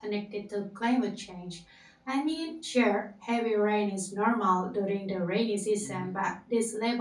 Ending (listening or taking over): listening